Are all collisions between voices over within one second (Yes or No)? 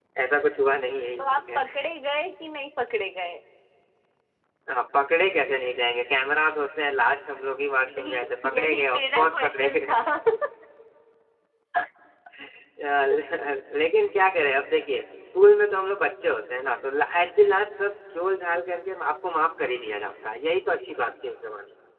No